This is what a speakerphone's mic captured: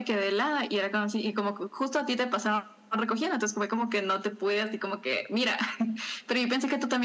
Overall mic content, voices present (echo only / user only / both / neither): echo only